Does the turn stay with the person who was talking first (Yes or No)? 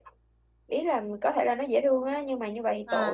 Yes